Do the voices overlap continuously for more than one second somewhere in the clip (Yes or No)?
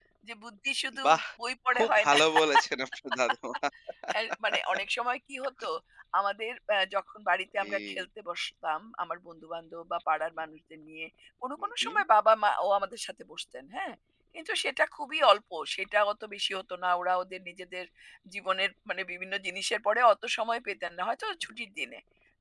No